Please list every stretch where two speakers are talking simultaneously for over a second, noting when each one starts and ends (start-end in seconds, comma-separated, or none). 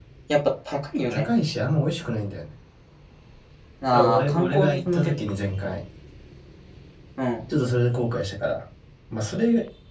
3.9-5.2